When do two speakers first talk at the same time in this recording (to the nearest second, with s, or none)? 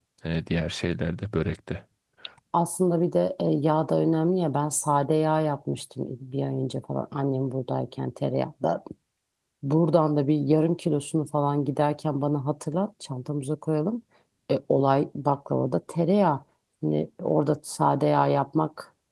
none